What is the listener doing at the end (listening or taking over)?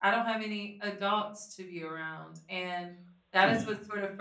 listening